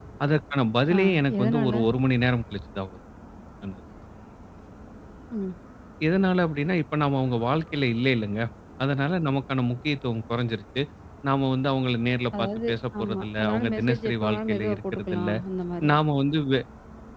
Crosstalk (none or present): present